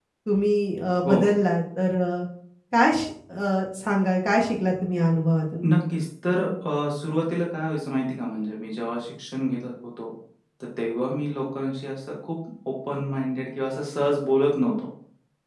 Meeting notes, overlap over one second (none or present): none